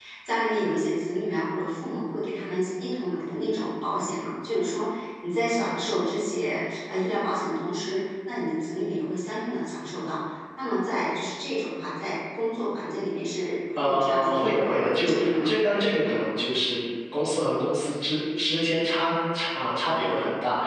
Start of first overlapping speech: 13.8 s

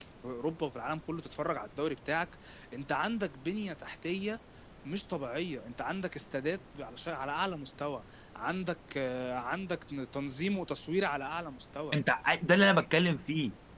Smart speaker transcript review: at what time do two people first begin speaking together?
none

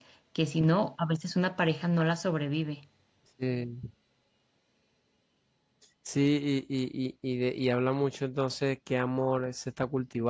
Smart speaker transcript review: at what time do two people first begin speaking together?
none

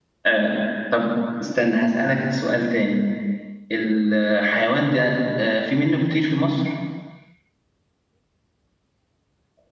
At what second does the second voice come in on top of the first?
none

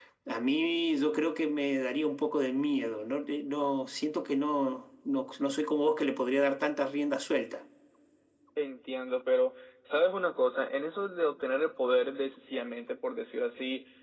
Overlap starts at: none

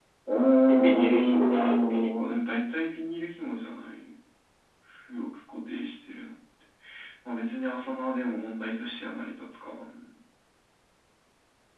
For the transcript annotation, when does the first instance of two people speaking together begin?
0.7 s

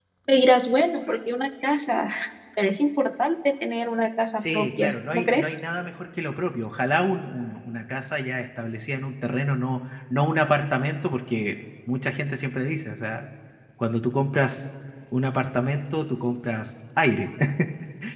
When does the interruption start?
4.4 s

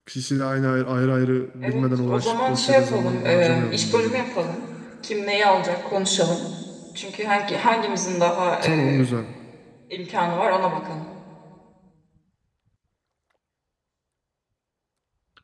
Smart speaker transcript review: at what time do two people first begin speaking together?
1.6 s

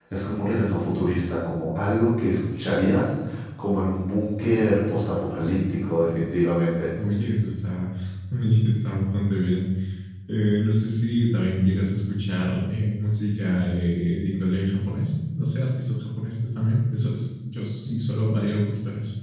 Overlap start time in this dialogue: none

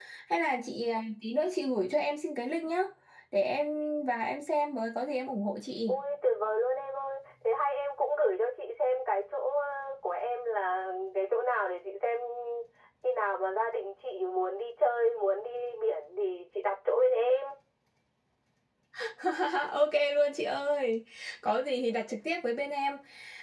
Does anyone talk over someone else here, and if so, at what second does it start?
none

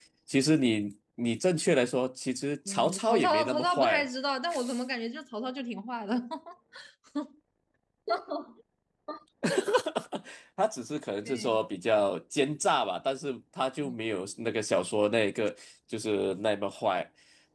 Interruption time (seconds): 2.7 s

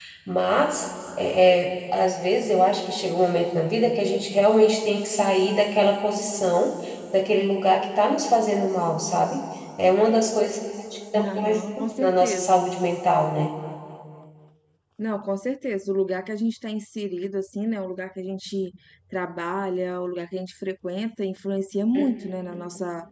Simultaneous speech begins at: 11.2 s

